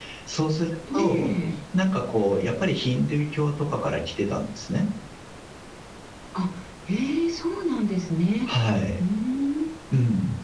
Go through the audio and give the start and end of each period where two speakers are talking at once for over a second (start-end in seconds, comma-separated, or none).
none